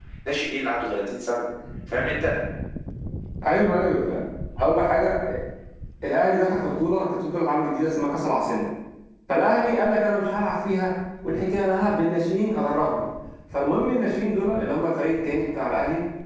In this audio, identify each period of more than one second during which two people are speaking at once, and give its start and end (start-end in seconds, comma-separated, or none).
none